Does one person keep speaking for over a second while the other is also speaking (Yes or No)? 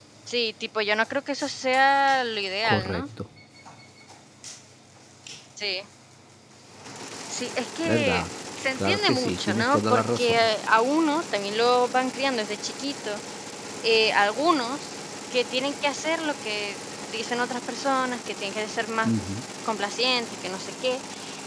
Yes